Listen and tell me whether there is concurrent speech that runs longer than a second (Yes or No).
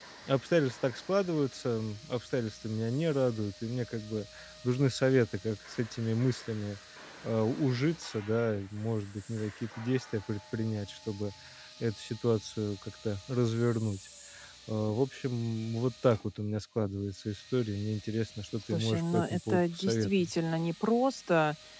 Yes